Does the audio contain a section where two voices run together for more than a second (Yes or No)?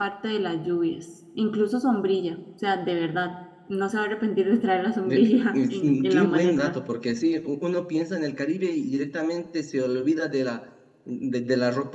Yes